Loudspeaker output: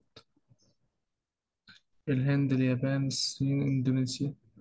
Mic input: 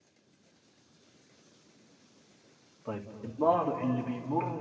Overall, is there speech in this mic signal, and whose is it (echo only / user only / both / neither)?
user only